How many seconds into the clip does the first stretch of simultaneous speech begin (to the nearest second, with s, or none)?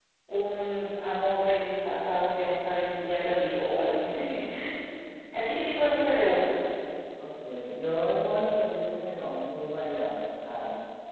none